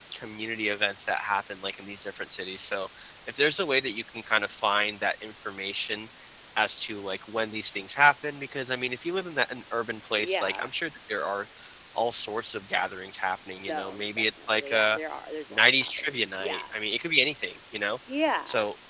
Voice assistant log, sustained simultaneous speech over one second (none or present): present